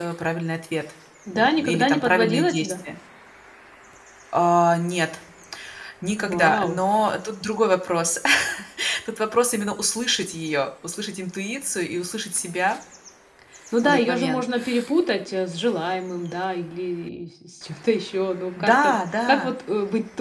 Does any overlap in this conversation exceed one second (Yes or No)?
Yes